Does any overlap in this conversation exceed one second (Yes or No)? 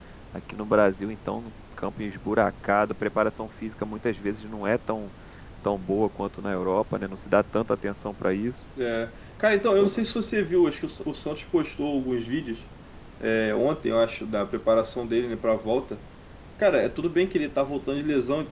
No